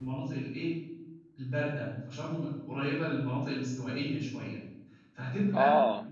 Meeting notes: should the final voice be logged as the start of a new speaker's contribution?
No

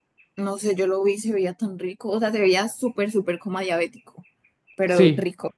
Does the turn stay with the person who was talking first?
No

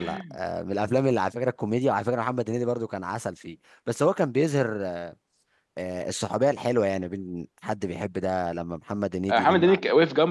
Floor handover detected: Yes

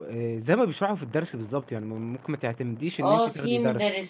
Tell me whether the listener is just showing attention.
No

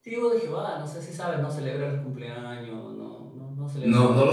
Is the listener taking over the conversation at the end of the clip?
Yes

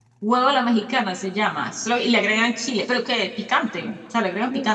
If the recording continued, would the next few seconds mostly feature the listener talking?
Yes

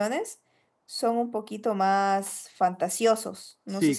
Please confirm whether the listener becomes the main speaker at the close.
Yes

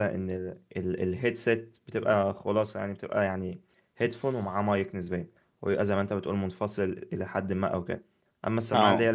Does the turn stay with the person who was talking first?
Yes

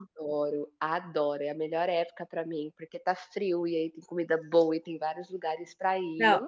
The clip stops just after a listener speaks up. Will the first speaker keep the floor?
No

